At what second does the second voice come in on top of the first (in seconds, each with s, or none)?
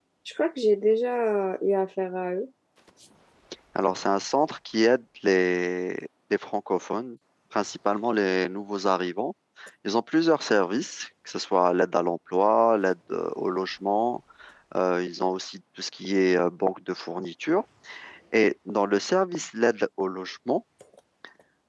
none